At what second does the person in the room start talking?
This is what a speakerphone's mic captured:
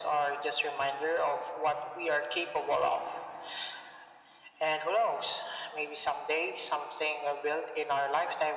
none

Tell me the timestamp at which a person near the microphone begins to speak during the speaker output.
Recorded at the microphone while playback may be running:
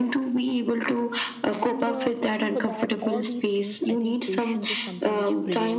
2 s

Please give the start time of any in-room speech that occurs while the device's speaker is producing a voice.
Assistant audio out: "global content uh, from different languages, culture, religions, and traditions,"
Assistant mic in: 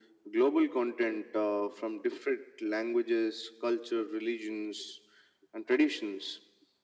none

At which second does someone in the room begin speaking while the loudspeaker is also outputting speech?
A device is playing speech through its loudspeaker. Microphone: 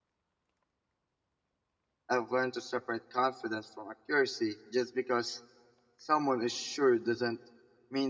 2 s

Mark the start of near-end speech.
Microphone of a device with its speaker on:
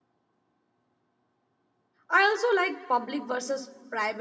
2 s

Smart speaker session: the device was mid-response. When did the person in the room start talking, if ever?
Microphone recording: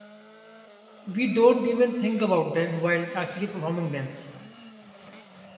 1 s

